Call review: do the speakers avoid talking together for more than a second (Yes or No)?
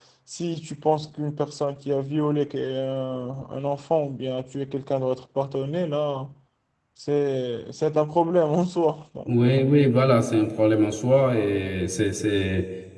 Yes